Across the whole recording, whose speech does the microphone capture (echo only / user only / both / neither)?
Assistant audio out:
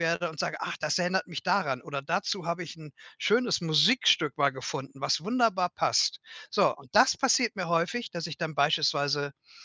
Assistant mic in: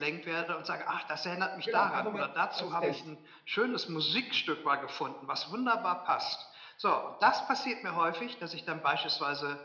both